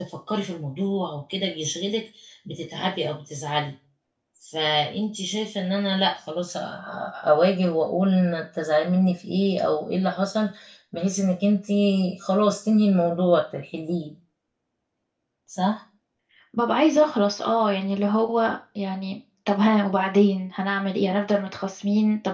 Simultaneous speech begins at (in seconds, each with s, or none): none